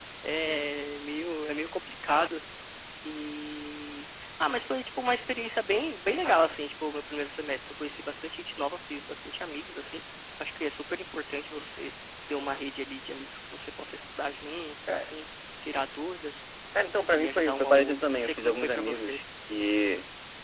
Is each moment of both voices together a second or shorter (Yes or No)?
No